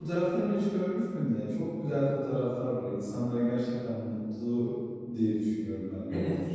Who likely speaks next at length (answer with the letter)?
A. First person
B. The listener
B